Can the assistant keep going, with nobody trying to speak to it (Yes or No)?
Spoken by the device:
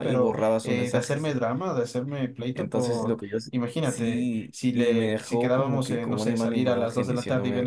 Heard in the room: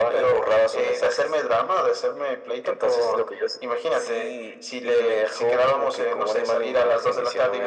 Yes